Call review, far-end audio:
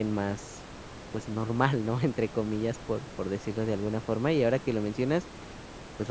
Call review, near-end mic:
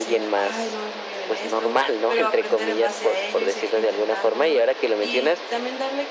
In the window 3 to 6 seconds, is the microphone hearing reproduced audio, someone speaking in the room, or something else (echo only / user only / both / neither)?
both